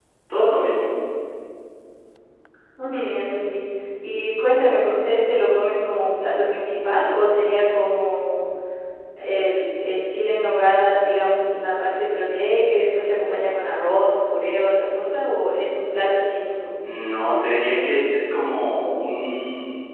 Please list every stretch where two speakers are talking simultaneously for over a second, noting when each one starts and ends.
none

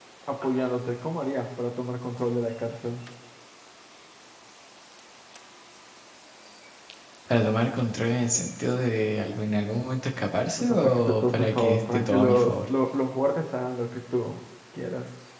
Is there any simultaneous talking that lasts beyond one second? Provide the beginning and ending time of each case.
10.6-12.7

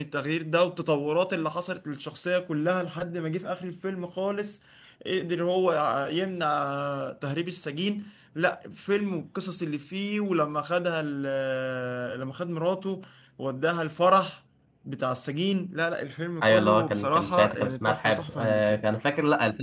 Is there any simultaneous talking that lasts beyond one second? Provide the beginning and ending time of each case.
16.4-18.8

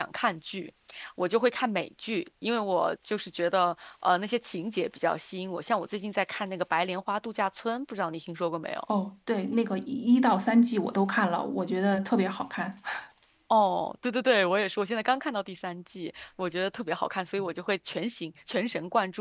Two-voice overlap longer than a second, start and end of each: none

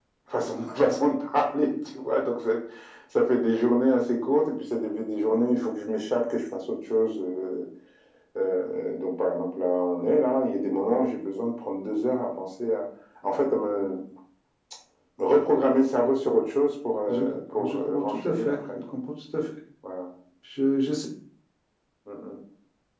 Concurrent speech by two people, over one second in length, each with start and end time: 17.1-18.8

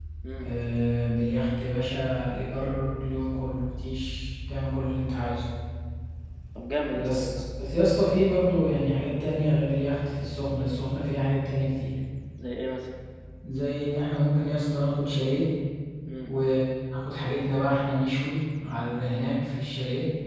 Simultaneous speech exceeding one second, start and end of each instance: none

